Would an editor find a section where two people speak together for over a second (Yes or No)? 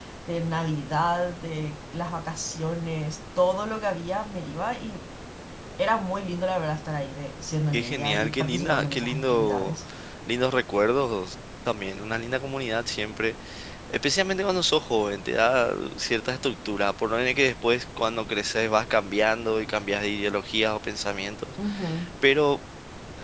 Yes